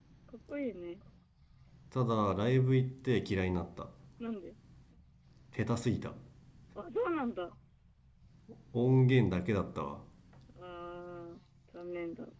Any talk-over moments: No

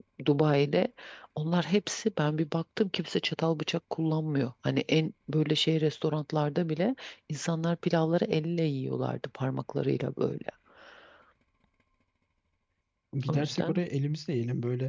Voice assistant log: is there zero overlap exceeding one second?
Yes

